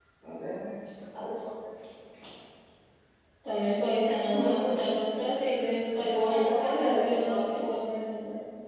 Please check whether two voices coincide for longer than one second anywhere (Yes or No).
Yes